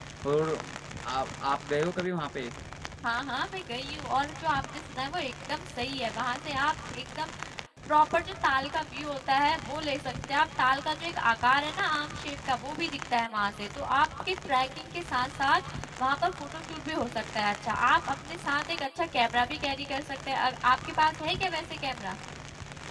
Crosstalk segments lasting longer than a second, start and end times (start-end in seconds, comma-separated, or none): none